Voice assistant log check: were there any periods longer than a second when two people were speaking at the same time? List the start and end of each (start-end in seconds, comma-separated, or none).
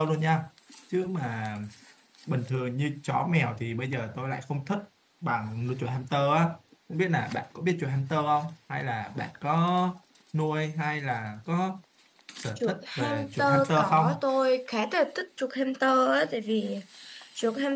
12.6-14.1